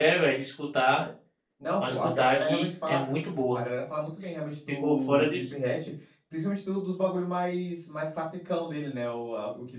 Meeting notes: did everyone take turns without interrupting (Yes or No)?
No